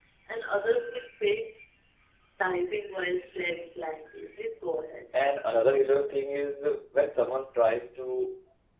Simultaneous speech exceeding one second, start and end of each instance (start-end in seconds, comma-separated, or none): none